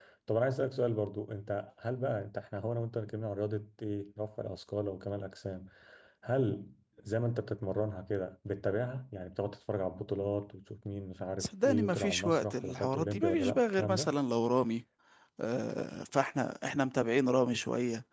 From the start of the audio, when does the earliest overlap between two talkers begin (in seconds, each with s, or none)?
11.4 s